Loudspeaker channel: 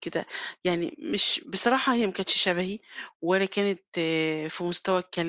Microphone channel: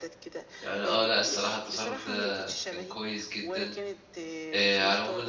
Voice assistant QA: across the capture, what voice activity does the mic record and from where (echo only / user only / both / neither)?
both